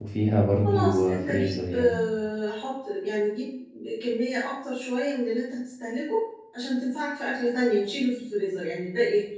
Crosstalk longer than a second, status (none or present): present